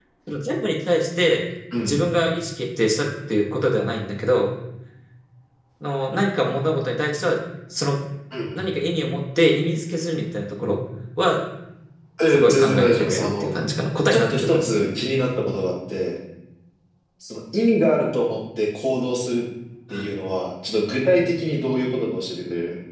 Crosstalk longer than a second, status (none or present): present